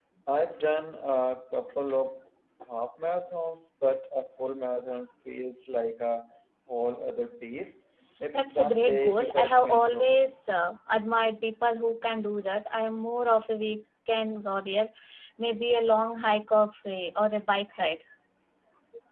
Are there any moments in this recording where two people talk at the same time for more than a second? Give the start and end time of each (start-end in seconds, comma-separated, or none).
8.3-10.2